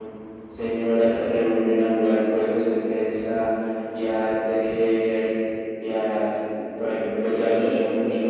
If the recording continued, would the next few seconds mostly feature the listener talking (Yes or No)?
No